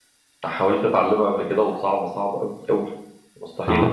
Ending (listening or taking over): taking over